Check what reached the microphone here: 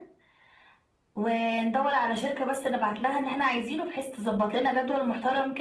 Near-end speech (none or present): none